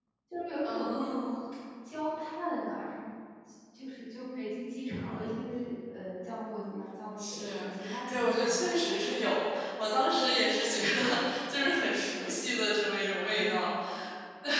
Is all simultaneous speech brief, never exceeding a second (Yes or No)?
No